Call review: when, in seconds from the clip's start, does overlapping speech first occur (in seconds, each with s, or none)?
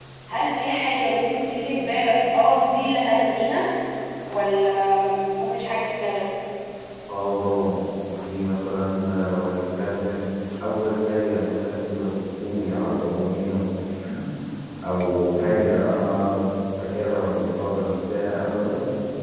none